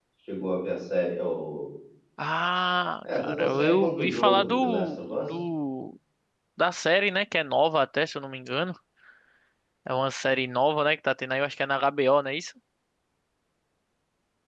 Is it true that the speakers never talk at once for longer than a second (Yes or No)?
No